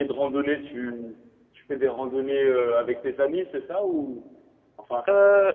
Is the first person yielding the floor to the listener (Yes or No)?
Yes